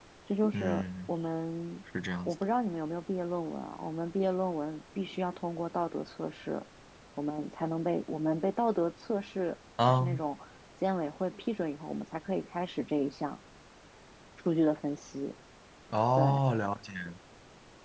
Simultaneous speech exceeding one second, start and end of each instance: none

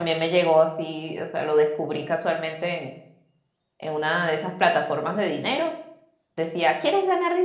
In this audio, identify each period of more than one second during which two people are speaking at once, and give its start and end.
none

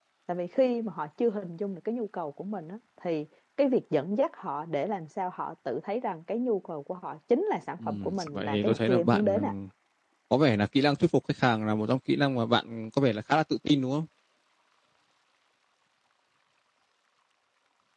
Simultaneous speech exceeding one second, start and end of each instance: 7.9-9.5

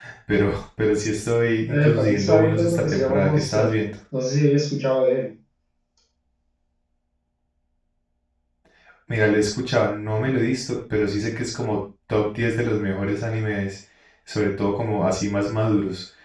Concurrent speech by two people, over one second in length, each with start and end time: 1.7-3.7

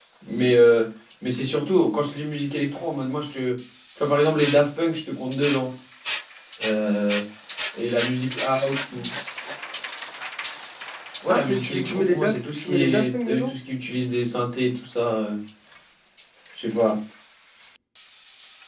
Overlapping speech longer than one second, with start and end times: 11.3-13.5

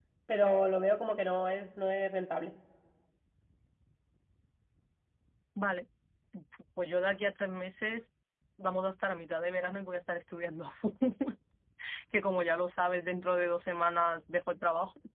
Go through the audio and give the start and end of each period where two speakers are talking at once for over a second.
none

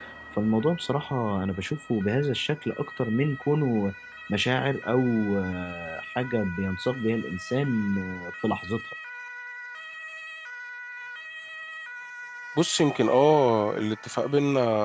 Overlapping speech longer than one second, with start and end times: none

